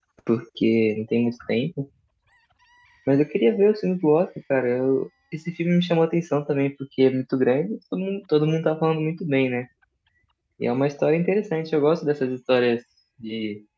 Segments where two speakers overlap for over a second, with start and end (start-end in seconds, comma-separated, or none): none